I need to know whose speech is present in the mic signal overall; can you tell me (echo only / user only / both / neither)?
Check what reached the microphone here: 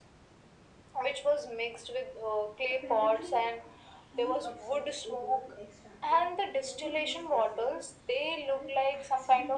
both